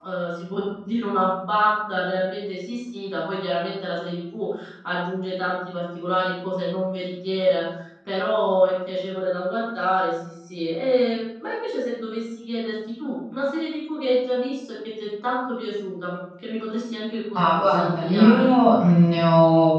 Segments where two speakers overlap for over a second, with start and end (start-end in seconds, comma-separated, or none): 17.4-18.6